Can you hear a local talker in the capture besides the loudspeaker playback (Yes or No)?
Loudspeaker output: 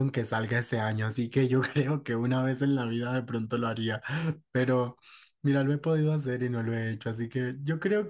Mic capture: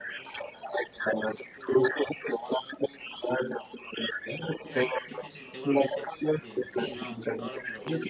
Yes